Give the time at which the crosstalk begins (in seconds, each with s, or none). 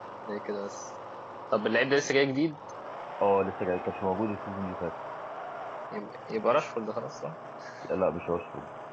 none